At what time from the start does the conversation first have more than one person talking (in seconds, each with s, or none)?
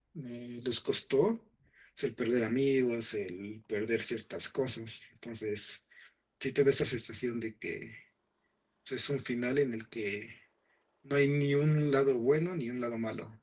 none